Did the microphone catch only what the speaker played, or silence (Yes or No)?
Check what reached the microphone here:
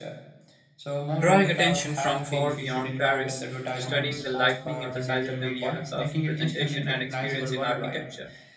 No